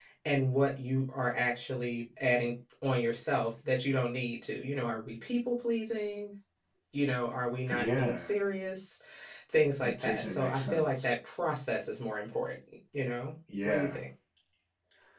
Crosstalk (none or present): present